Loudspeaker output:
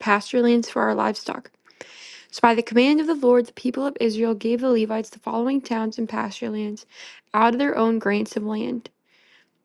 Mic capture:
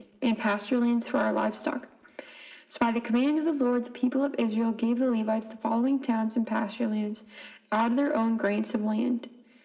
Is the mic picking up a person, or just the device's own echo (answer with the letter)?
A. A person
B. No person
B